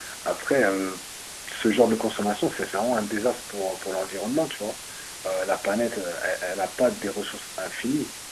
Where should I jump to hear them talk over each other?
none

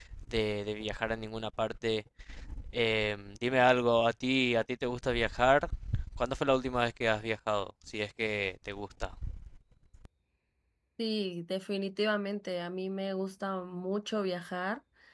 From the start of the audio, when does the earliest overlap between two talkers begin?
none

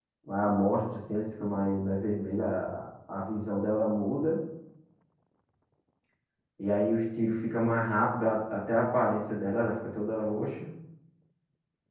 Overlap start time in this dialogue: none

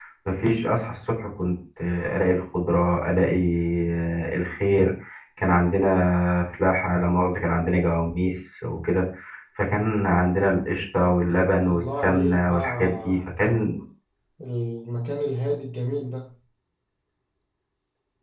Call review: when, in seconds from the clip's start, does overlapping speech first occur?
12 s

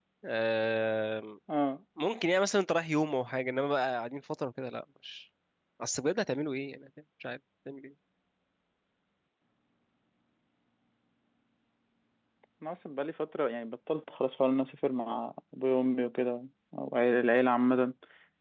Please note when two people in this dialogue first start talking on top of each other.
none

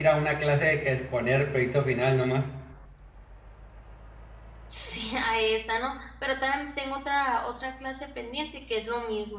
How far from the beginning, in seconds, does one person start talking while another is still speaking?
none

